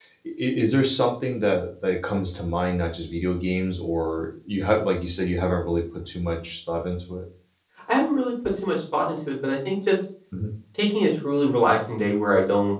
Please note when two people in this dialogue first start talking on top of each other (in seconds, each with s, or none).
none